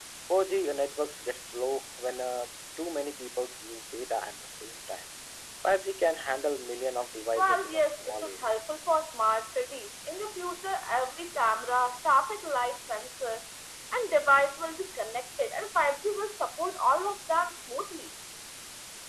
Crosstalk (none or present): present